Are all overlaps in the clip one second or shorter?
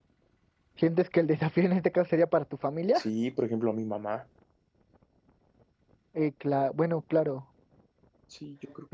Yes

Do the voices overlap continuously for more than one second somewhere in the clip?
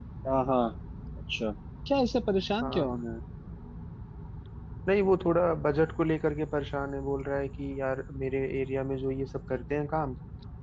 No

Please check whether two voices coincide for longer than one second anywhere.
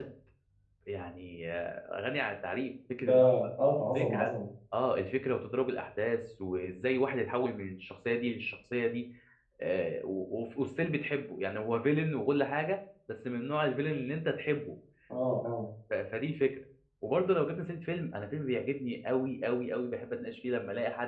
No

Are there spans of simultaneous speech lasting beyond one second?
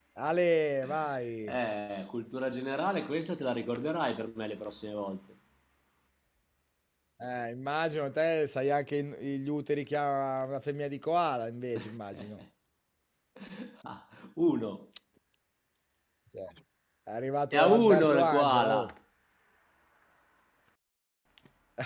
Yes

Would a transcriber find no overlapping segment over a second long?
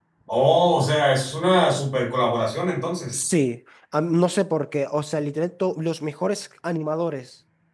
Yes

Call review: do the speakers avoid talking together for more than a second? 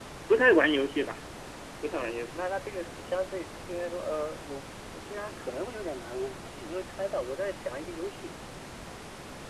Yes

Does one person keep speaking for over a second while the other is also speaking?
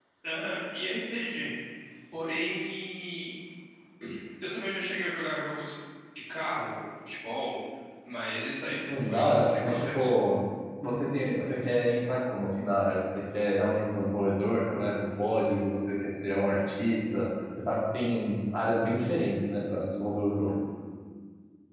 Yes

